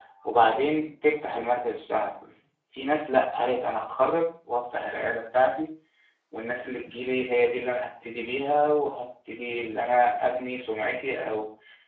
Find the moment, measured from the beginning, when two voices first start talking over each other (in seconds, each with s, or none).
none